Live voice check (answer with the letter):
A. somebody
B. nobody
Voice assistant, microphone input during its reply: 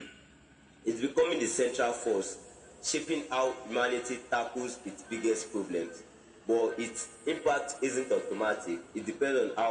B